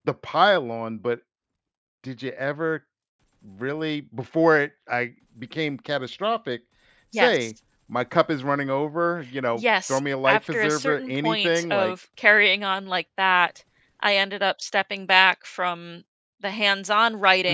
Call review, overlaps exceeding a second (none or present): present